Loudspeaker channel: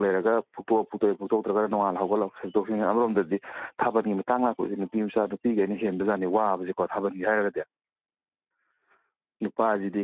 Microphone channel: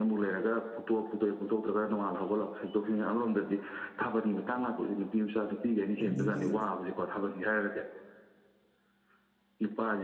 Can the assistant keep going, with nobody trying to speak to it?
No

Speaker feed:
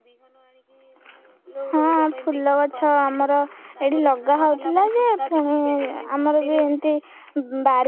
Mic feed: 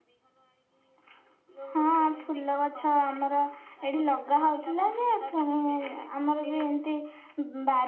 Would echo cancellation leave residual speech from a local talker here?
No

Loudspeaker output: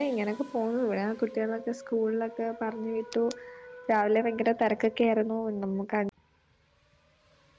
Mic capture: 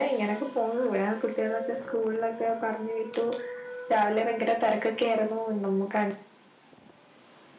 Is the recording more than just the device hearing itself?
No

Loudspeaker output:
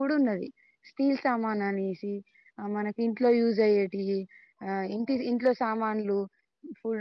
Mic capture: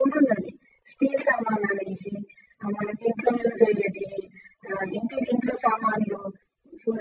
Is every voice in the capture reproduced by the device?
Yes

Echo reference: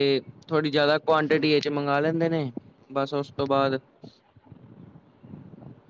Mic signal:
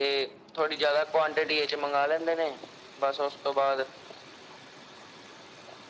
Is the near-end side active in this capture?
No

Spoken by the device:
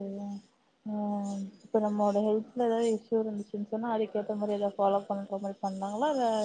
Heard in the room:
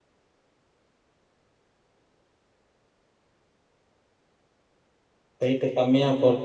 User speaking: Yes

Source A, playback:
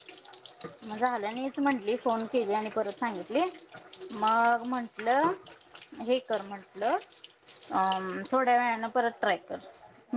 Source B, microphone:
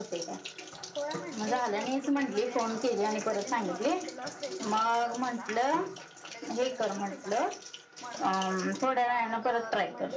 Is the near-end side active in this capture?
Yes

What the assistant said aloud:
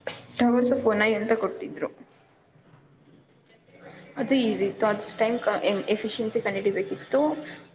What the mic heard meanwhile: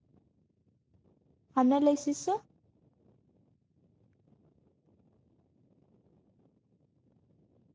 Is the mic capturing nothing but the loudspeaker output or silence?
No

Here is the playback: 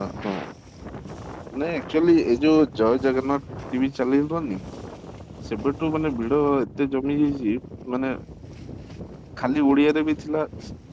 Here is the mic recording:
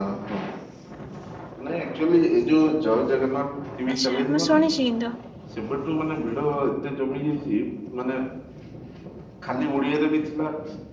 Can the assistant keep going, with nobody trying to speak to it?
No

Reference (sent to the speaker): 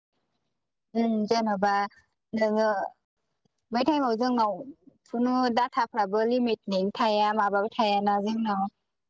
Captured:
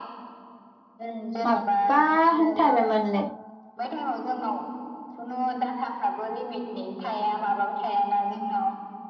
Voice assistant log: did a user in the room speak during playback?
Yes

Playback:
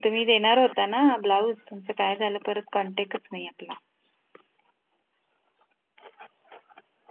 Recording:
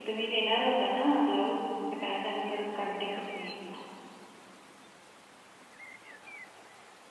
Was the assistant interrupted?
No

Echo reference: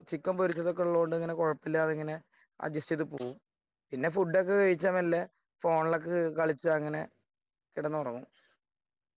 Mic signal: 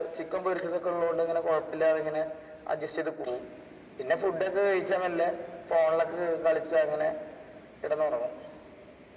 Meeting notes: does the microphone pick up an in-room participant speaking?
No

